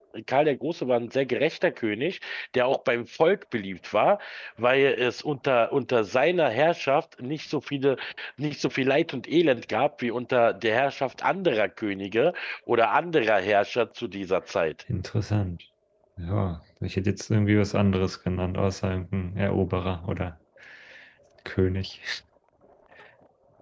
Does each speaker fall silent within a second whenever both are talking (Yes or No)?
Yes